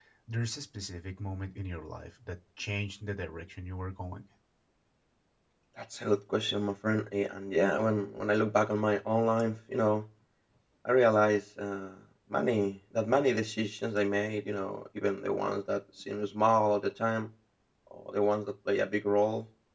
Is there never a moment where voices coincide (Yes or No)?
Yes